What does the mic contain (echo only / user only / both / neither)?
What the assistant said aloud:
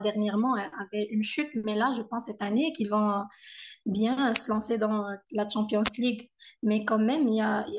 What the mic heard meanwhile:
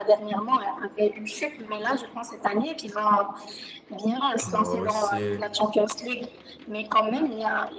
both